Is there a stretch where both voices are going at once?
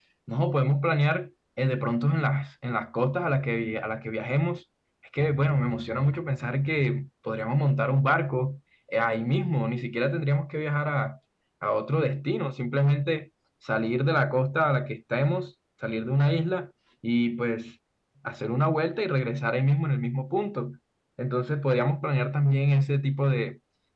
No

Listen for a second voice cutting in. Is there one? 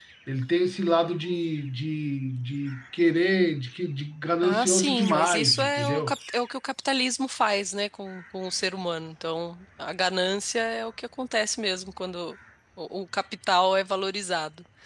Yes, from 4.4 s

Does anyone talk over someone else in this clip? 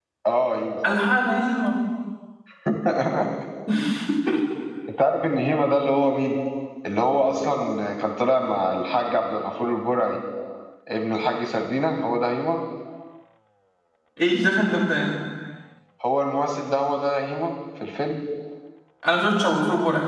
No

